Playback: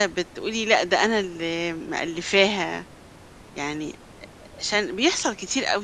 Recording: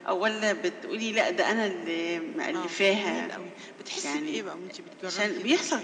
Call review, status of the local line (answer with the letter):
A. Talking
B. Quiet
A